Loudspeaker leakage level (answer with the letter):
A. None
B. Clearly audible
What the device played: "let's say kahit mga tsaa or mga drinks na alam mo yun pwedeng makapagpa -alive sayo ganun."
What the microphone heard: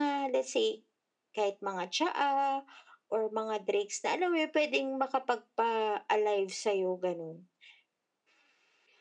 B